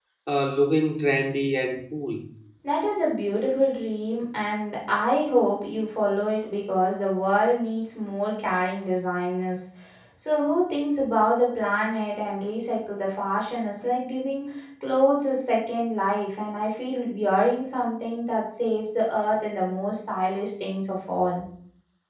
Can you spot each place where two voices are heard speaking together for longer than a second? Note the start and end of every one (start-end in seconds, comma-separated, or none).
none